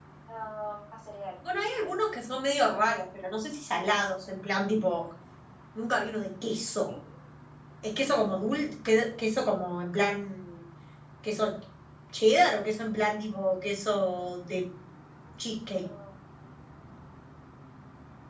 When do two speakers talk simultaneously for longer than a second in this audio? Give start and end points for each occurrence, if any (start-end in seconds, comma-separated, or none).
none